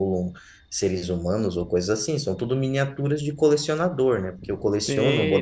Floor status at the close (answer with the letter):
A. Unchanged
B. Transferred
B